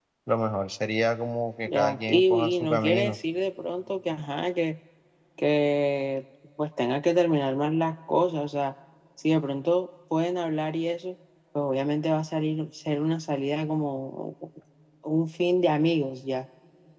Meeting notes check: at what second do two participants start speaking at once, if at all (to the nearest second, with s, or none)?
2 s